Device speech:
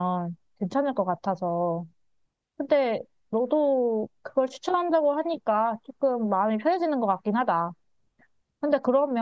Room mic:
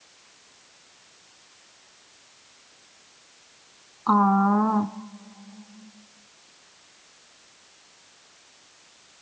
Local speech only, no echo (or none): 아,